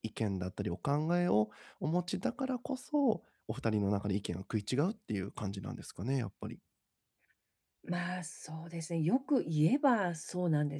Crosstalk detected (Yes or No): No